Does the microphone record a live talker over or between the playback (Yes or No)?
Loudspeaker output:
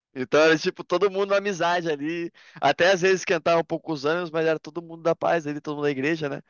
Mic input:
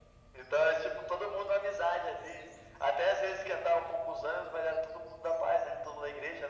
No